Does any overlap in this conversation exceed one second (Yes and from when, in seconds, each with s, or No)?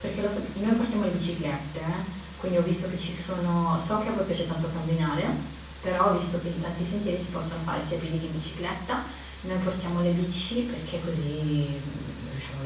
No